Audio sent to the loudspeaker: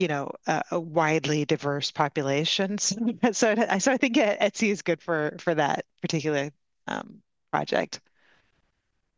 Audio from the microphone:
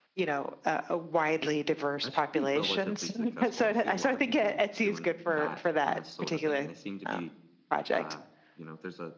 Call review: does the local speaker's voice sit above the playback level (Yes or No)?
No